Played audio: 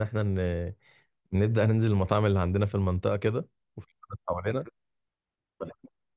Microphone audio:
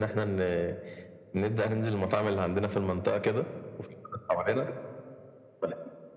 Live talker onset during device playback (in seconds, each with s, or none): none